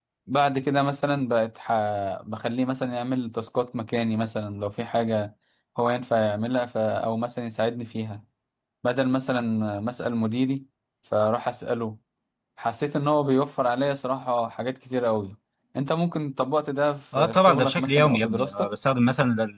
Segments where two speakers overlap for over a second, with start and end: 17.1-18.7

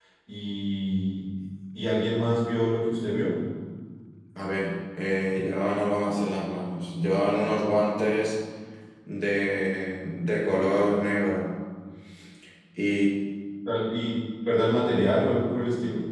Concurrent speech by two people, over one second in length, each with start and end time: none

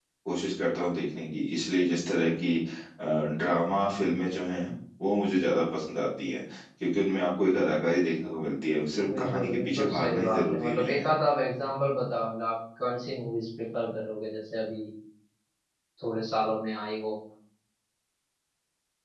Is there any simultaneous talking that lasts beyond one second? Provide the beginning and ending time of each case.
9.1-11.0

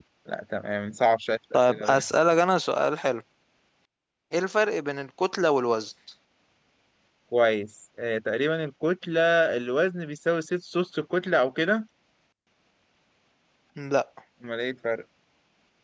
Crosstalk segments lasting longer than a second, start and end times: none

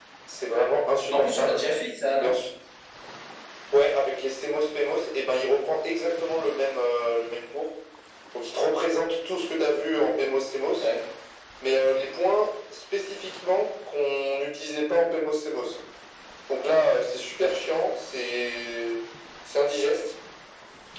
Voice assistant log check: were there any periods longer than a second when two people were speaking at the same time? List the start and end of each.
none

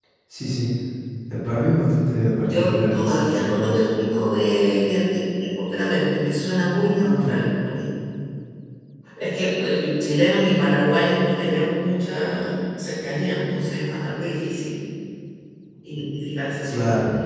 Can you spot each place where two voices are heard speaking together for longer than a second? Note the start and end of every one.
2.3-3.8

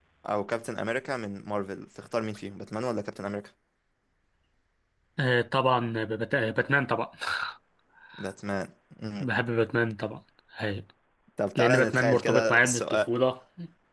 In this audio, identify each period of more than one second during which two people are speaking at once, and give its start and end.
11.6-13.1

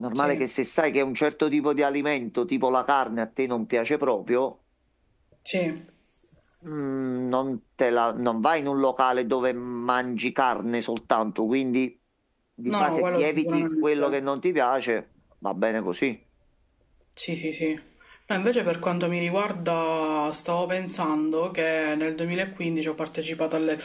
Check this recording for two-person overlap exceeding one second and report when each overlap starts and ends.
12.7-14.0

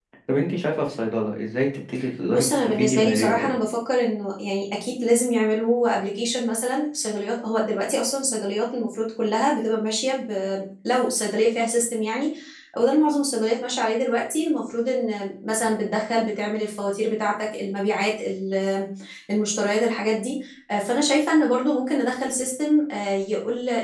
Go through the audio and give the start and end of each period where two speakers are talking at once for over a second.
2.3-3.5

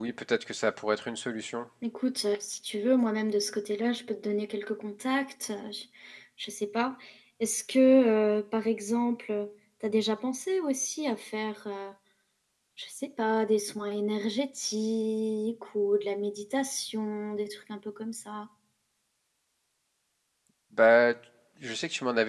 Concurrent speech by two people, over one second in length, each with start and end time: none

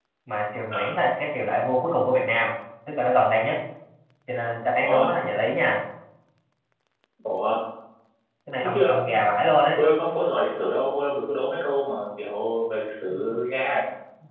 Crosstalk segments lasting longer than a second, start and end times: none

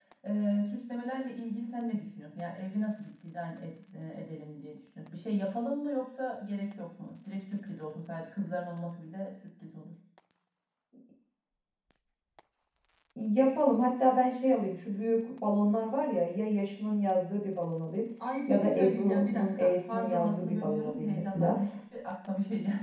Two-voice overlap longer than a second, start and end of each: 18.5-21.5

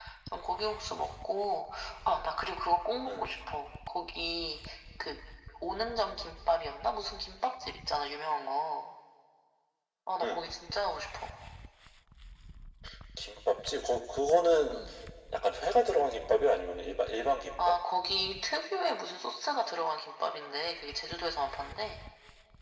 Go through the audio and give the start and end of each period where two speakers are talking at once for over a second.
none

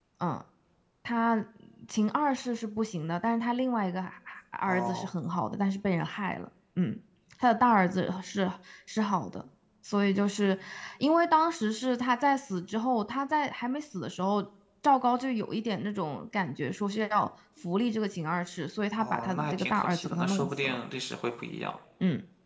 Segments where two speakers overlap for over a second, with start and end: 19.0-20.8

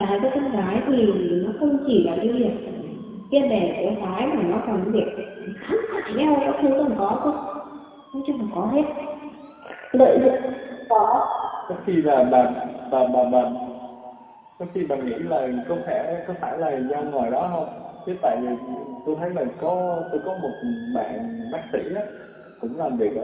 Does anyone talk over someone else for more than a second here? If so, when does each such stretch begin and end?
none

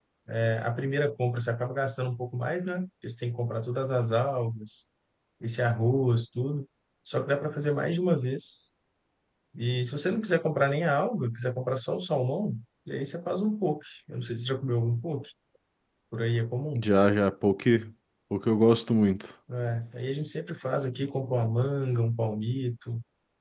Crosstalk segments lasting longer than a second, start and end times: none

